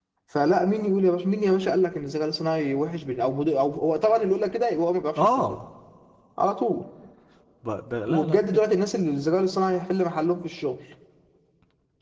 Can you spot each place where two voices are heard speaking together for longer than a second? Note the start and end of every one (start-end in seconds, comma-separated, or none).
none